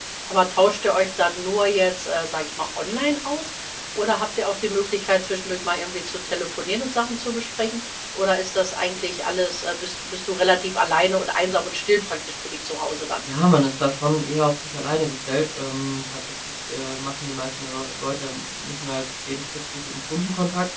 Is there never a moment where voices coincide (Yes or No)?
Yes